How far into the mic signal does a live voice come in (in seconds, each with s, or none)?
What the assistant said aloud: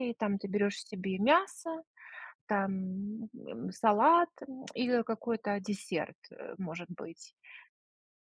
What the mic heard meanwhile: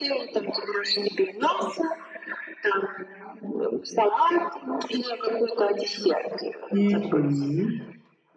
6.7 s